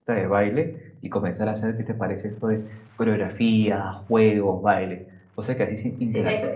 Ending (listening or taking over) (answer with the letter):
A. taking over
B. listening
A